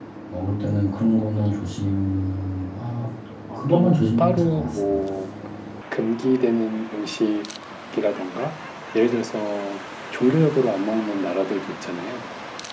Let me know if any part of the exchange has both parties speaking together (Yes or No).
Yes